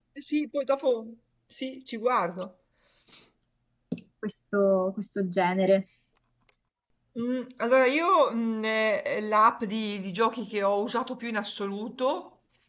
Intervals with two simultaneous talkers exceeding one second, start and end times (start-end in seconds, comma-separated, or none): none